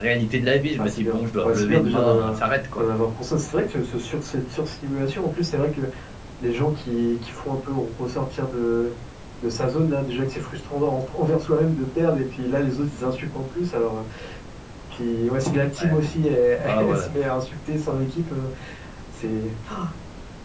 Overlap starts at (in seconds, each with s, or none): 0.8 s